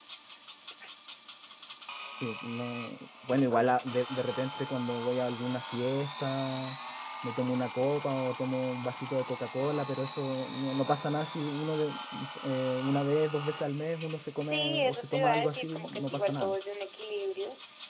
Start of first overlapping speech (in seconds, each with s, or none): 14.4 s